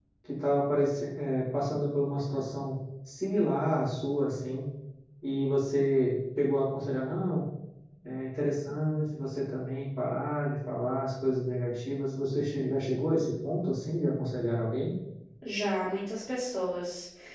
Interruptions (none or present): none